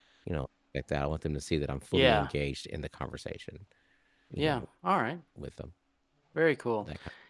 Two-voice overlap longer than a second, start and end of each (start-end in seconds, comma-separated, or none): none